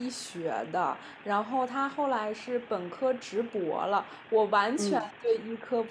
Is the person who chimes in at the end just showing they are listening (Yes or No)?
Yes